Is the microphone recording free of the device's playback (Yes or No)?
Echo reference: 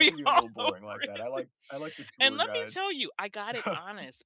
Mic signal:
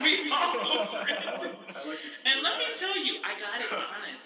No